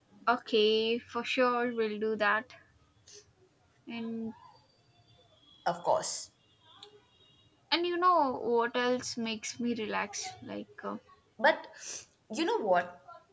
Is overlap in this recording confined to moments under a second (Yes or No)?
Yes